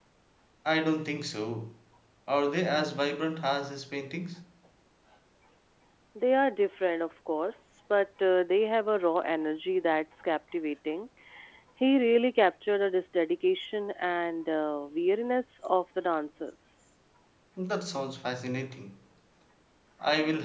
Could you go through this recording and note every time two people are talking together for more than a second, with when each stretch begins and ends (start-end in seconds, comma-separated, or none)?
none